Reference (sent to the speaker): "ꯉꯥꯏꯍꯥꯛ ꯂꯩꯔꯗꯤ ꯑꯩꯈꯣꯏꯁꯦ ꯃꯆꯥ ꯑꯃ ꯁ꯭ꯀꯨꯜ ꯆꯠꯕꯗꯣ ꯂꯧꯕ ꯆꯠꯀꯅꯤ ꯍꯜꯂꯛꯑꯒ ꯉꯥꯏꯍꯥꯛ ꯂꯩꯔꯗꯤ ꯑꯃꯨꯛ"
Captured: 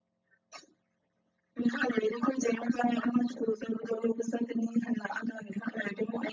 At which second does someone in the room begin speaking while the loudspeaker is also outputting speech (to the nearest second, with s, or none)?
none